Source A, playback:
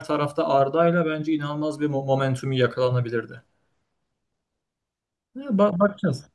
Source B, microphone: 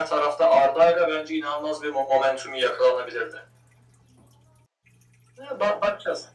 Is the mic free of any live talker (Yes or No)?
Yes